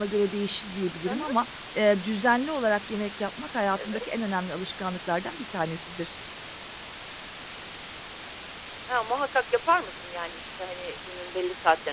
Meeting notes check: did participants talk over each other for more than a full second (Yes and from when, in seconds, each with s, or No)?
No